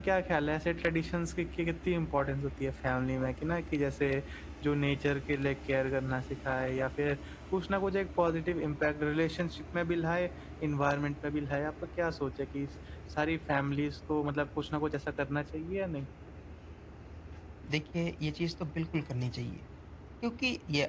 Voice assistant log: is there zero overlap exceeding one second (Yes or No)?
Yes